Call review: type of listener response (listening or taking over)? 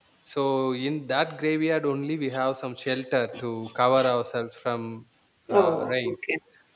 taking over